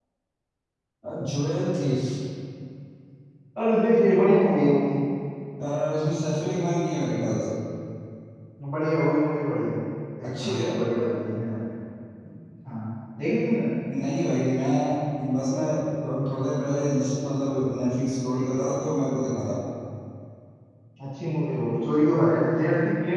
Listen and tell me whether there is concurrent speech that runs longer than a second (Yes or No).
No